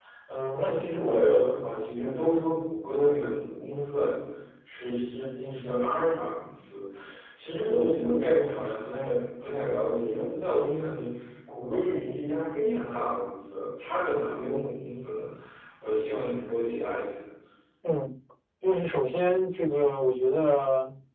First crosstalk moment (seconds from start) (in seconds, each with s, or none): none